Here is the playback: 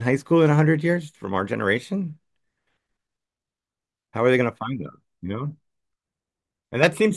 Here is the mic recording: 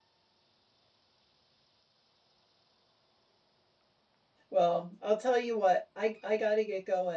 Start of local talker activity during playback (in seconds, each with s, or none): 4.5 s